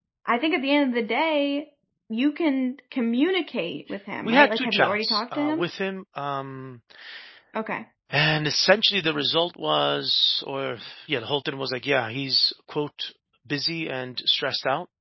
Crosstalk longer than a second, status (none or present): present